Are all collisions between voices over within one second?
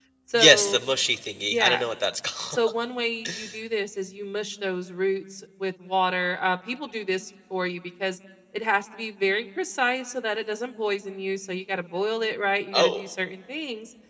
Yes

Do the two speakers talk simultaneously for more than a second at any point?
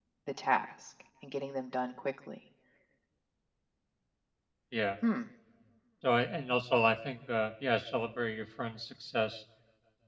No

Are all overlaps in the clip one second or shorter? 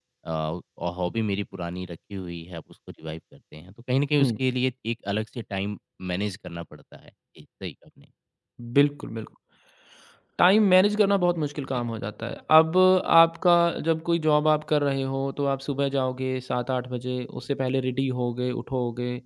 Yes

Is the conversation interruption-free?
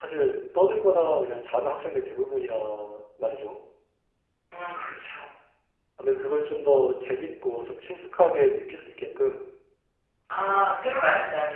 Yes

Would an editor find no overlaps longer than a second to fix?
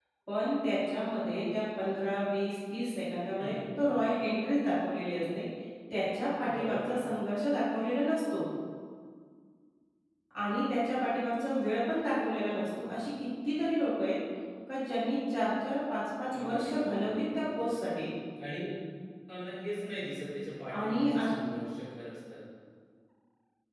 No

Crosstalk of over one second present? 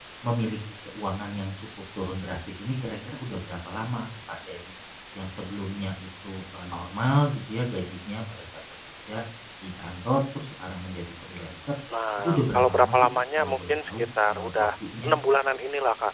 Yes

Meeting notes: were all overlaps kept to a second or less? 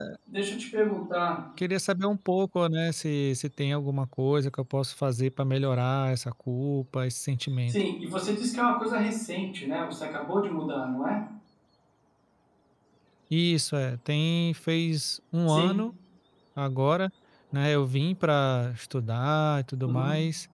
Yes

